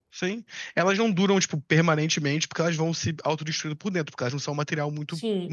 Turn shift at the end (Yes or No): Yes